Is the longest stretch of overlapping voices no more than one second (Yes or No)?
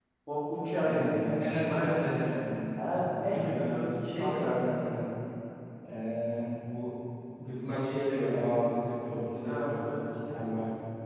No